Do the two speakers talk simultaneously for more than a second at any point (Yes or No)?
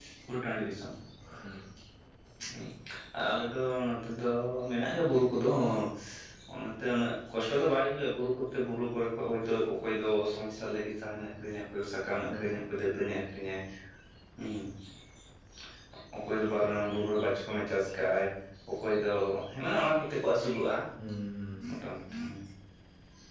No